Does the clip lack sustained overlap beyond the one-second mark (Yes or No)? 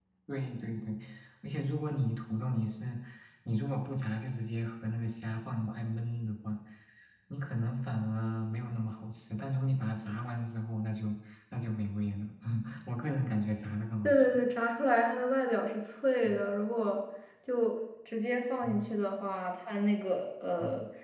Yes